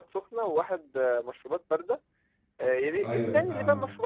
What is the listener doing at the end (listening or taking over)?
listening